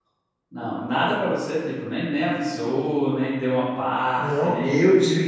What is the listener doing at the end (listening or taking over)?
taking over